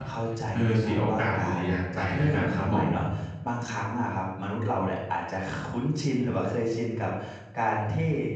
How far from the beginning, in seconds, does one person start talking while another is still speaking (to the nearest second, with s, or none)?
1 s